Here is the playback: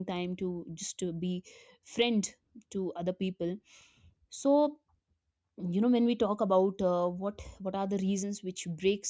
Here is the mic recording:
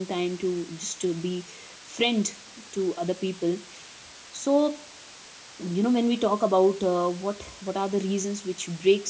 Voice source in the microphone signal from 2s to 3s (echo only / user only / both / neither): echo only